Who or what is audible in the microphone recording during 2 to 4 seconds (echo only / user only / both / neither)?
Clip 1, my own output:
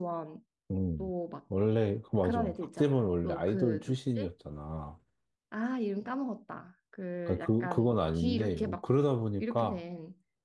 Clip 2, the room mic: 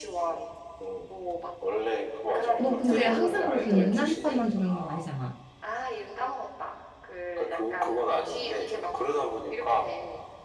both